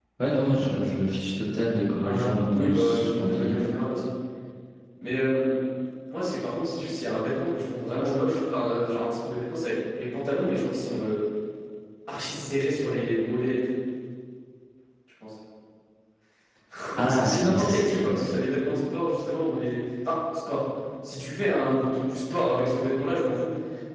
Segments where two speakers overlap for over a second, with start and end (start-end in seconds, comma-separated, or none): 2.0-3.6, 17.0-18.3